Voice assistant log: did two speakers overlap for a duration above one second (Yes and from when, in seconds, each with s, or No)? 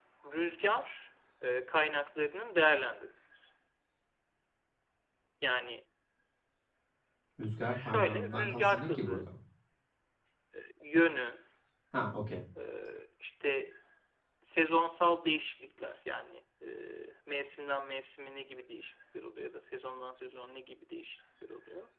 Yes, from 7.7 s